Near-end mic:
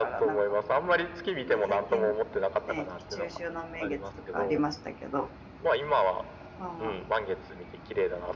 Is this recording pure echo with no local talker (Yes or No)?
No